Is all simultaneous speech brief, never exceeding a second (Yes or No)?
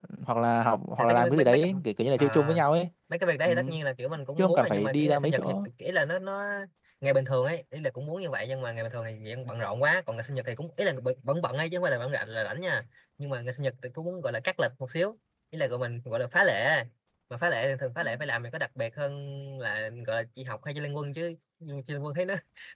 No